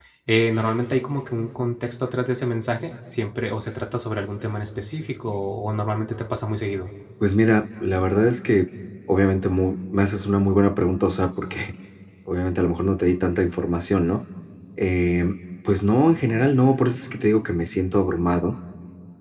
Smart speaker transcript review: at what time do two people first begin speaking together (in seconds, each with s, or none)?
none